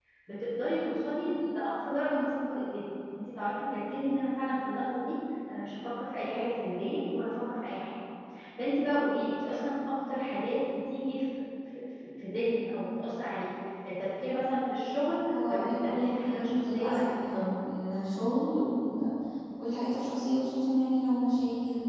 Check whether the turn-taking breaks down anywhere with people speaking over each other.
Yes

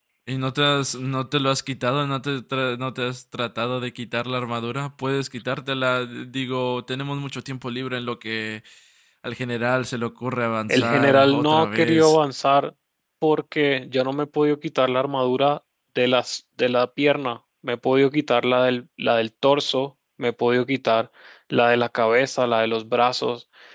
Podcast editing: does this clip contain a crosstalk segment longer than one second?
Yes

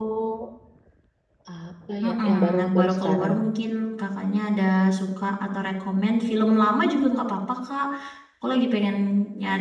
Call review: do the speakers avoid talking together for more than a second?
No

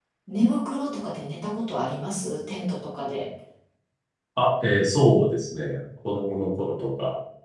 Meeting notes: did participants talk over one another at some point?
No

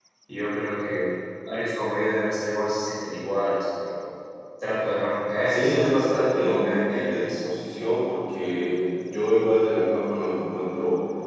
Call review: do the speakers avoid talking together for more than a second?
No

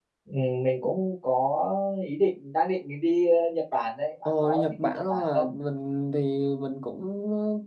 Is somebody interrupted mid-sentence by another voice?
Yes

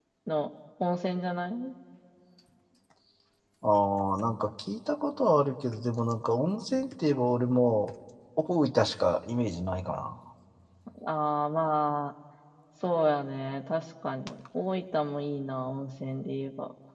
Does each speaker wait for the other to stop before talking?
Yes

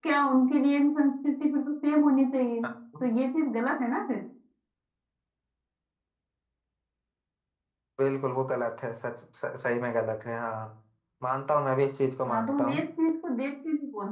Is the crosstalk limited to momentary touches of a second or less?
Yes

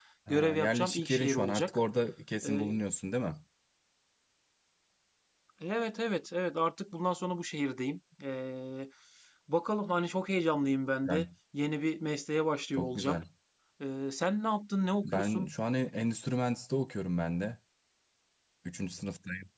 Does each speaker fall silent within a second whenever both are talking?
No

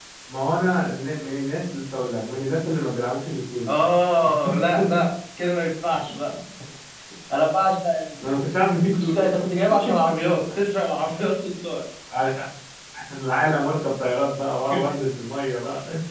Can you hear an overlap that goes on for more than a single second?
No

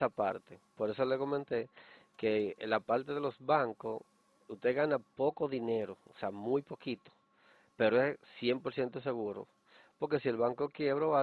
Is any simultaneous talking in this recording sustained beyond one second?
No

